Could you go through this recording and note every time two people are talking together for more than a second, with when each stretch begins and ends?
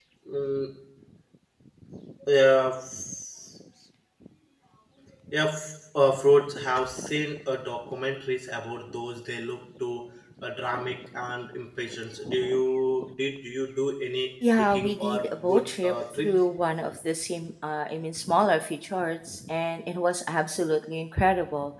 14.6-16.3

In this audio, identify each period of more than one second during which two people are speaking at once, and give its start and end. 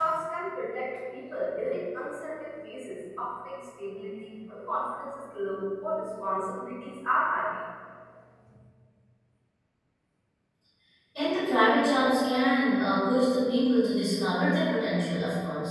none

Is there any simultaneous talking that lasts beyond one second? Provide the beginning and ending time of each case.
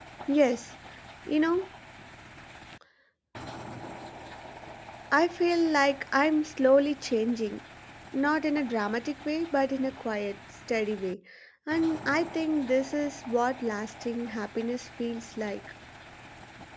none

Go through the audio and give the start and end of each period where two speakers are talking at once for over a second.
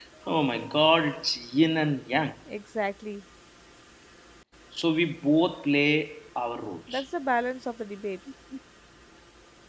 none

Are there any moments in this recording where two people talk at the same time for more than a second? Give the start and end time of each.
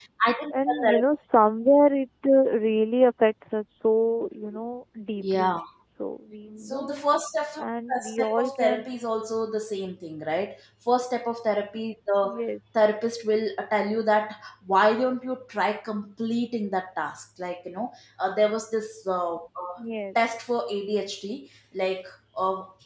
7.6-8.9

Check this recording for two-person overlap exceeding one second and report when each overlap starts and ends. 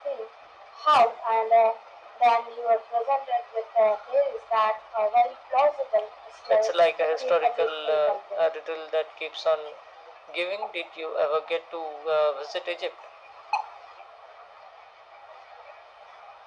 7.2-8.4

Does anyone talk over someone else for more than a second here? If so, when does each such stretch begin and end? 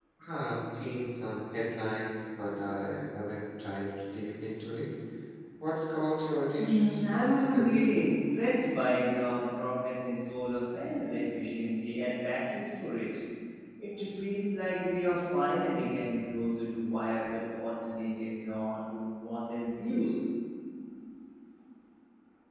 6.6-7.8

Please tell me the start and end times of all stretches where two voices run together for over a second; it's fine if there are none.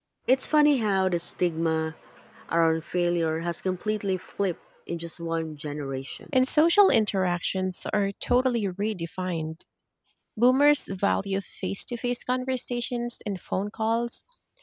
none

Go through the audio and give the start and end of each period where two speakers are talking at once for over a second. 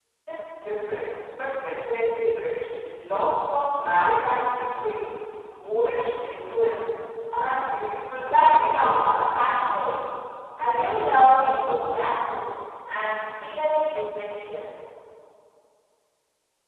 8.2-9.8

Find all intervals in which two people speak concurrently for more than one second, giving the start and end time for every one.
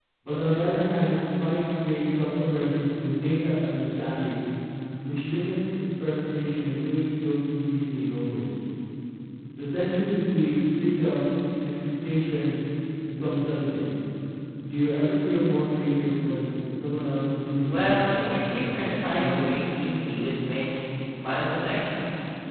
17.7-19.4

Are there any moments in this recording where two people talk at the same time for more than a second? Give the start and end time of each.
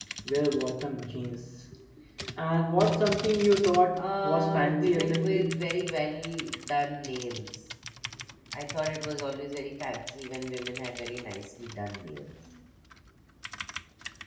4.0-5.7

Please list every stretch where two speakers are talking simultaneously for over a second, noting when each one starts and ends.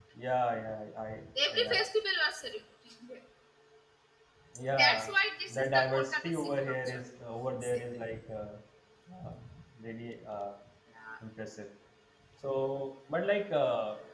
5.5-7.0

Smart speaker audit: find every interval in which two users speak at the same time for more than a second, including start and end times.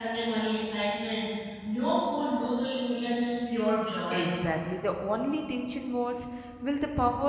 none

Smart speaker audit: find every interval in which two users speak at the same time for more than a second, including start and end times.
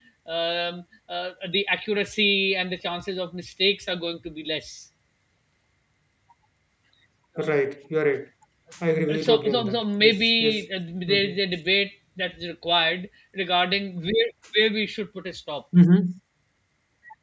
9.2-10.6

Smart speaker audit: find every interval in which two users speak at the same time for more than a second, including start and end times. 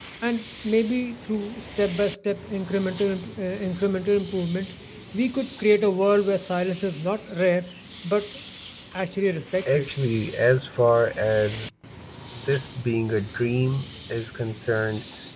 none

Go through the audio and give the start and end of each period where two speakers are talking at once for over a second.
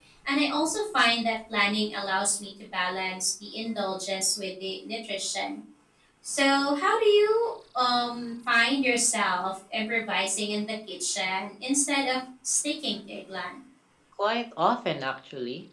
none

